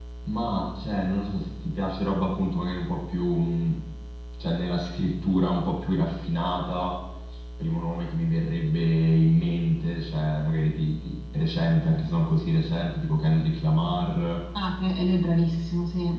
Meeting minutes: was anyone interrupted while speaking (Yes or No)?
No